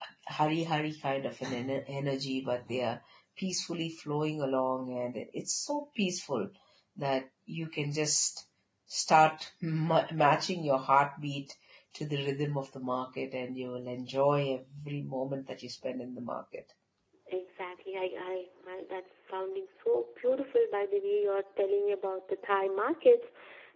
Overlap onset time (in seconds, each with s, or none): none